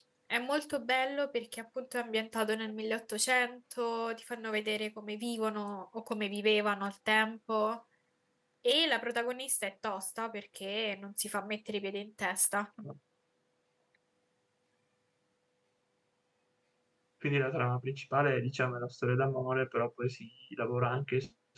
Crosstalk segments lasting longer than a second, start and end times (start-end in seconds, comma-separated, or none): none